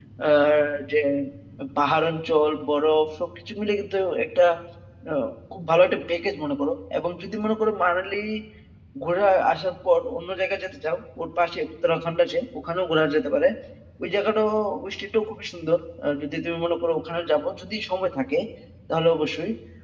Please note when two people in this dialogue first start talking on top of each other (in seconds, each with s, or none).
none